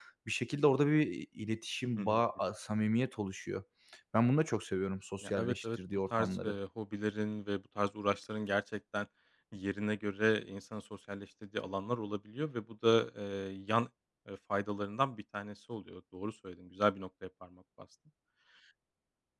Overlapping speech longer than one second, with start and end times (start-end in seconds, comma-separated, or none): 5.2-6.6